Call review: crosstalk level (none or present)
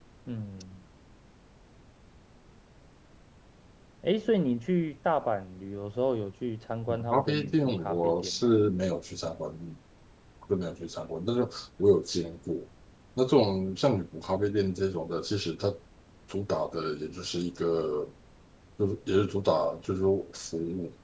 present